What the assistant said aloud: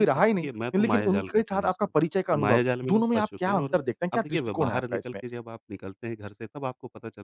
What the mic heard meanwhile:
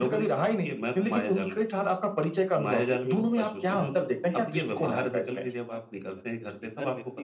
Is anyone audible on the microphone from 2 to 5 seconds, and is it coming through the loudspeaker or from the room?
both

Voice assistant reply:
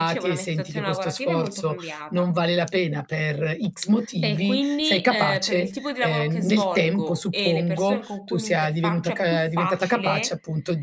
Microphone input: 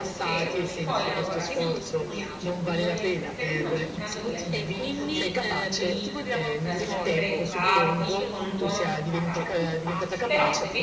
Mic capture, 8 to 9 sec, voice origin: both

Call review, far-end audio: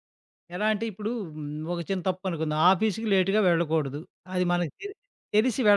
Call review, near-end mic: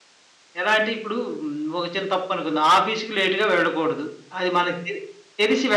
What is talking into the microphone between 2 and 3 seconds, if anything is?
echo only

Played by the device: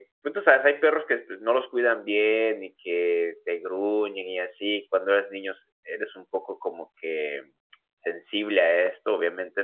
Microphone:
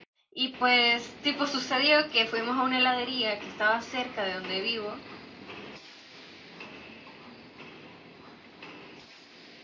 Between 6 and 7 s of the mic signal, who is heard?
neither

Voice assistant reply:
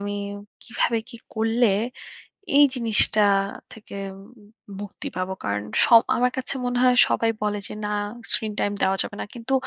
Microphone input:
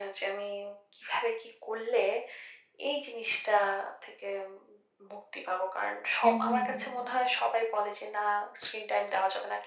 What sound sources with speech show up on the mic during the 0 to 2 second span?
echo only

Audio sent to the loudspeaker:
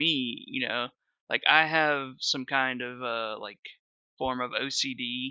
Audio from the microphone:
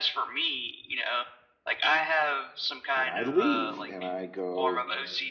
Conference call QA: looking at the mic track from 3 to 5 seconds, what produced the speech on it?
both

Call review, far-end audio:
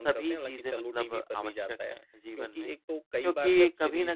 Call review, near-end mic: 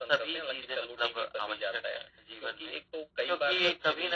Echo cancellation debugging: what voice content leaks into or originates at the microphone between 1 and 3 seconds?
echo only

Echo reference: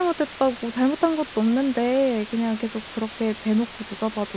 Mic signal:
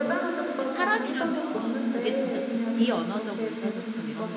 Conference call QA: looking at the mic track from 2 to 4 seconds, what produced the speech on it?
both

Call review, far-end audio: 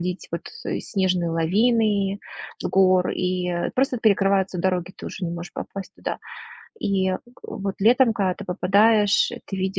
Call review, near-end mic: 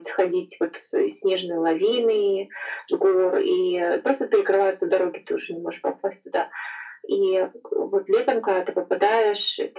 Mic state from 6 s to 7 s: echo only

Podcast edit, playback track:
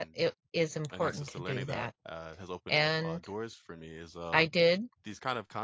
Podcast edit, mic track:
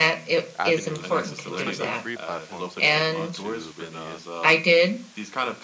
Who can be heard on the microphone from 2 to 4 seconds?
both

